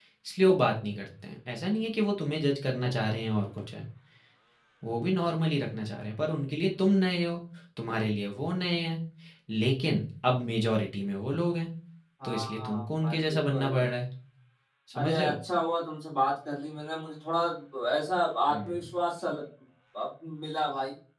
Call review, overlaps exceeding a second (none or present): present